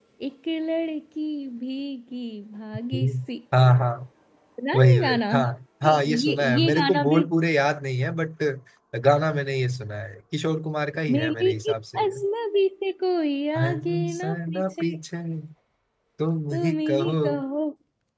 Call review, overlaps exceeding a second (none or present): present